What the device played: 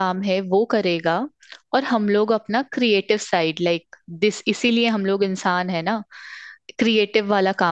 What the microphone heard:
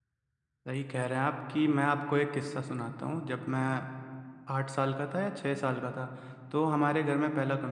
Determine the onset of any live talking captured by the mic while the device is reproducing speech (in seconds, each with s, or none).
0.7 s